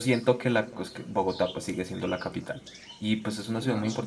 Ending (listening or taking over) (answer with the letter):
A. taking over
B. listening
B